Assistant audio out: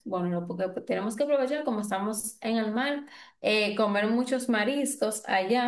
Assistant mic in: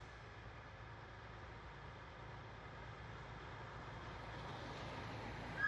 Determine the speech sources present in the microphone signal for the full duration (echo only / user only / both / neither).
neither